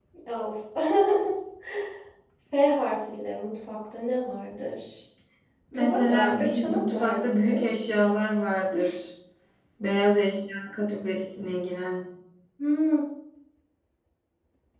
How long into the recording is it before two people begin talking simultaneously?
5.7 s

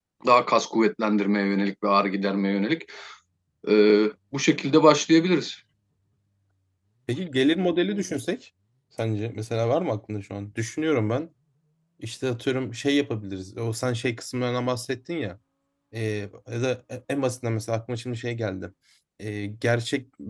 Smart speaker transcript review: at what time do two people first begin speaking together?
none

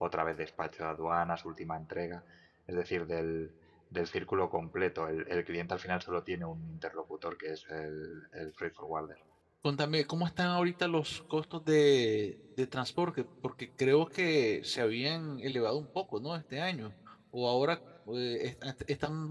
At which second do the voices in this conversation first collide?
none

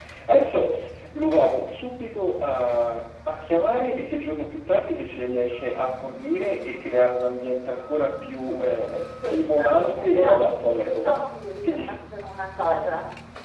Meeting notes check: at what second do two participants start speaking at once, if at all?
9.3 s

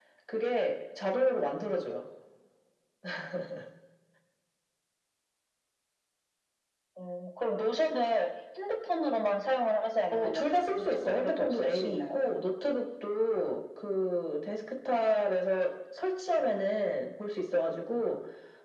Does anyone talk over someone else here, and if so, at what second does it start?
10.1 s

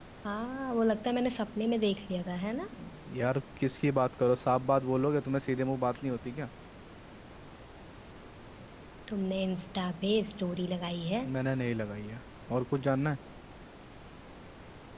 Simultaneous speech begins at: none

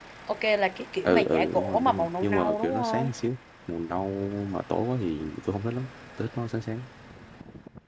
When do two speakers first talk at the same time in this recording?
1.0 s

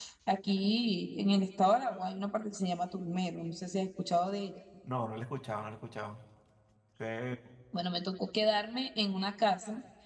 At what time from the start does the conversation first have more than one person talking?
none

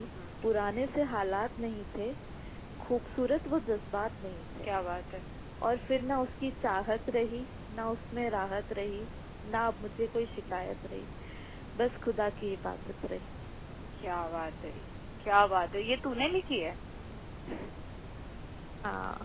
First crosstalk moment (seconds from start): none

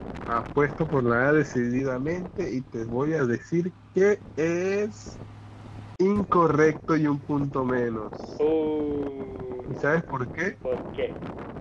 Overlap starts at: none

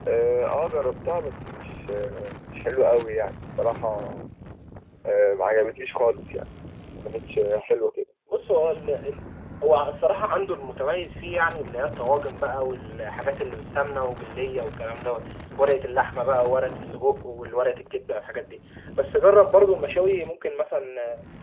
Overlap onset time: none

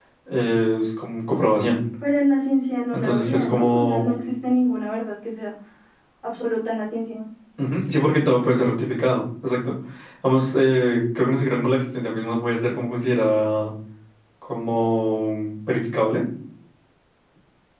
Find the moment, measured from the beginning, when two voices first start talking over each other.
2.9 s

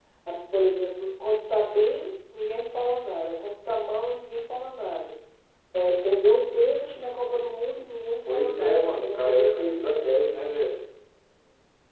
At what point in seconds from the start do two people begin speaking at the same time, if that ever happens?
8.3 s

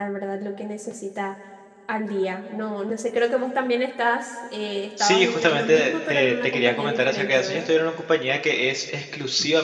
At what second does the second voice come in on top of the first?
5.0 s

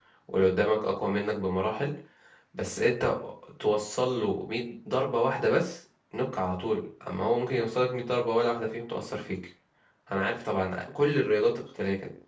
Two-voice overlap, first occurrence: none

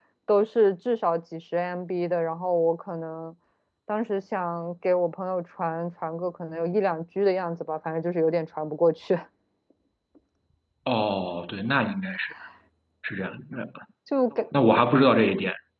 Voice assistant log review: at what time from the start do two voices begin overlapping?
none

